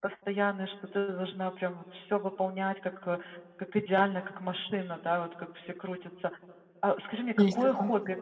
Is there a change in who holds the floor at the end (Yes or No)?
No